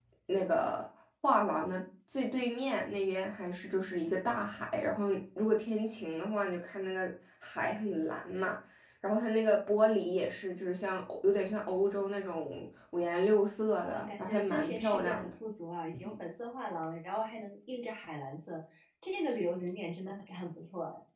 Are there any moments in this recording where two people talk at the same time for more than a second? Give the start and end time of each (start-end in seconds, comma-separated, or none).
13.8-15.3